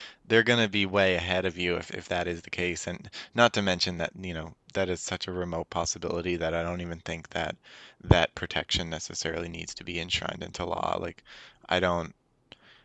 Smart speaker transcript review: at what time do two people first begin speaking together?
none

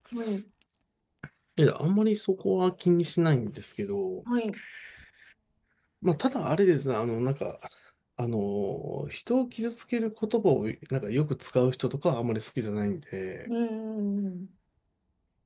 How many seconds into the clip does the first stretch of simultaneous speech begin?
none

